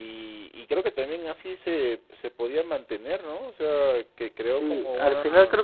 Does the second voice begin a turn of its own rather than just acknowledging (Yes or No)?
Yes